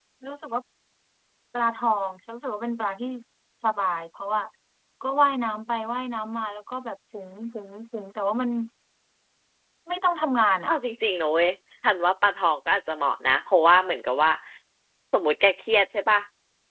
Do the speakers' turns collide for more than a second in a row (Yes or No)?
No